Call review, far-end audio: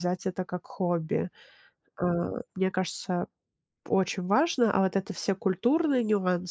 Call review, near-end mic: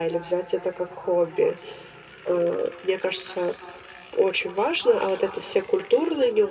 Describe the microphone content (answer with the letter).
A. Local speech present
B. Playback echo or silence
B